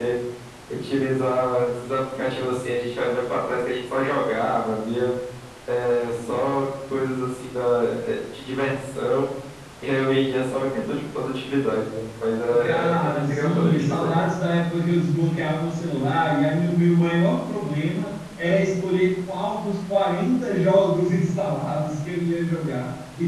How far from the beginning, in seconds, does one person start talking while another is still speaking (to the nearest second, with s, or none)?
12 s